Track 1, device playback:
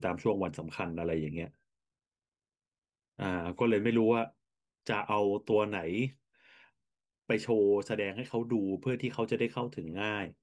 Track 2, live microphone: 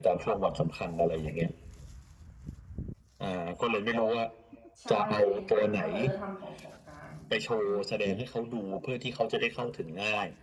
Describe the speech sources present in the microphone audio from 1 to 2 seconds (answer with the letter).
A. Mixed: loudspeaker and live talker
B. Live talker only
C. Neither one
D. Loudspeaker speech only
D